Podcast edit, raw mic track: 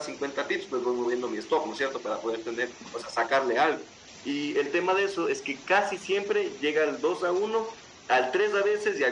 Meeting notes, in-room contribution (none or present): none